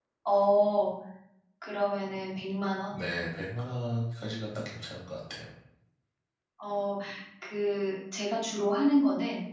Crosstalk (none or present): none